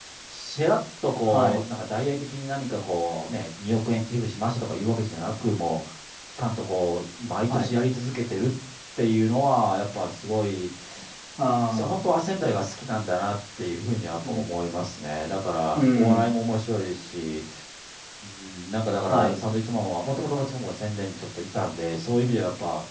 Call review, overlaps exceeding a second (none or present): none